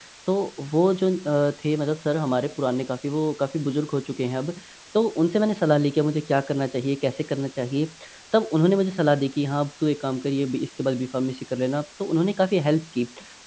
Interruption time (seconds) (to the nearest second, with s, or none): none